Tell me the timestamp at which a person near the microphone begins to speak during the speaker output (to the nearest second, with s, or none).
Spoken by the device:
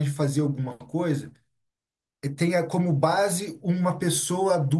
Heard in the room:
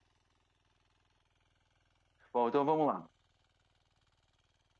2 s